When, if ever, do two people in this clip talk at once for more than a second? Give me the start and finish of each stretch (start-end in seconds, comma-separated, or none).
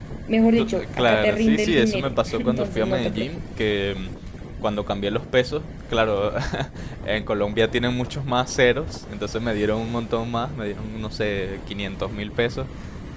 0.6-3.4